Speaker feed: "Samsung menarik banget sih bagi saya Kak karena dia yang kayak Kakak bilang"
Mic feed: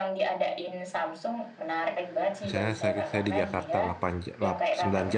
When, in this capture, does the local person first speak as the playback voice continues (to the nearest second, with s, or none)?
2 s